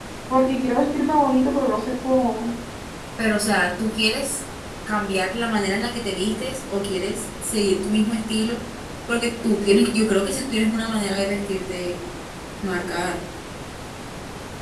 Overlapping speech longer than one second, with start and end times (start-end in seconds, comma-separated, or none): none